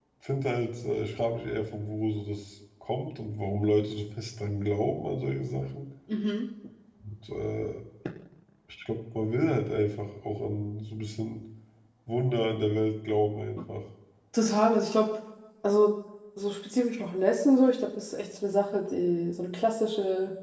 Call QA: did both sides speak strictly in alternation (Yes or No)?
Yes